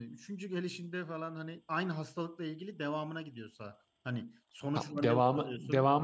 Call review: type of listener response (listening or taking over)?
taking over